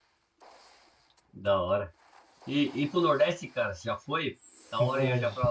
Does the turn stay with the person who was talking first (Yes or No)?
No